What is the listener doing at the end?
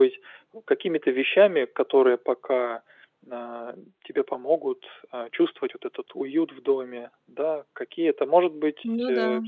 listening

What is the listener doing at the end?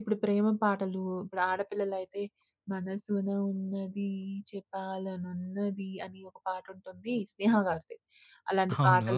listening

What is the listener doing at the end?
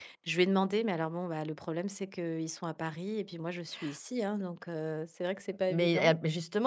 taking over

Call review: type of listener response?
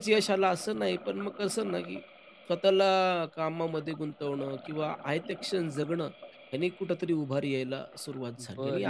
taking over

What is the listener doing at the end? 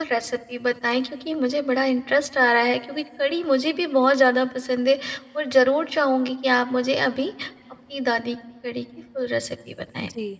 taking over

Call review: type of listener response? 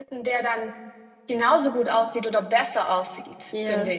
taking over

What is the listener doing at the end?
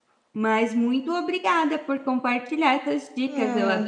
taking over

